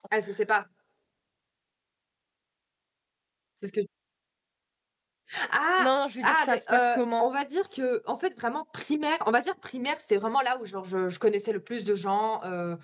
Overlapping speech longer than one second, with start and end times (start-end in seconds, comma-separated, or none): 5.8-7.3